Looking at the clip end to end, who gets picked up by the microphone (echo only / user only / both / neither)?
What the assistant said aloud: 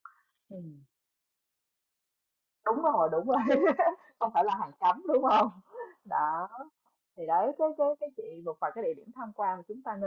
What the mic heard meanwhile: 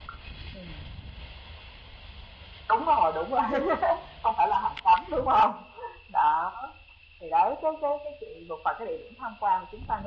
echo only